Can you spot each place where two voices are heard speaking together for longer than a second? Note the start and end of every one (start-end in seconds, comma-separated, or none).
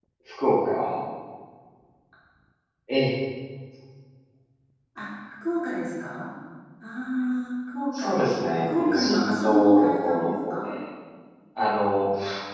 7.9-10.7